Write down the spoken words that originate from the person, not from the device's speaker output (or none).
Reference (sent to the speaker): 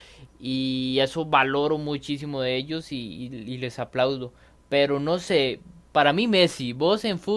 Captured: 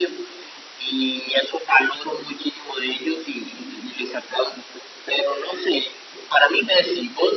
none